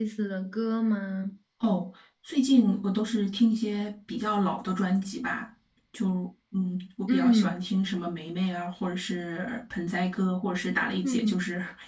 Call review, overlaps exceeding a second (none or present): none